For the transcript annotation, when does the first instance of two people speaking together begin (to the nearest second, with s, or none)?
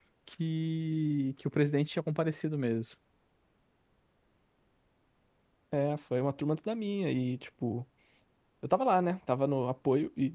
none